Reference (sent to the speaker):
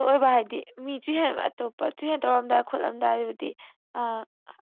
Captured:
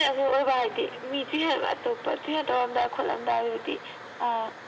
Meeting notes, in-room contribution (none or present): none